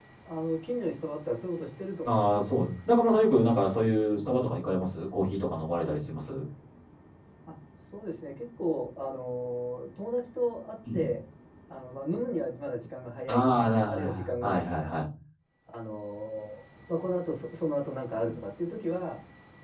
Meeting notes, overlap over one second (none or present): present